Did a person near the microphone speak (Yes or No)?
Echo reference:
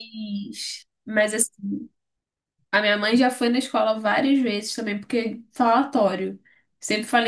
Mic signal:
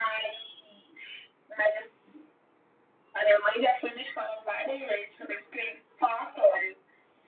No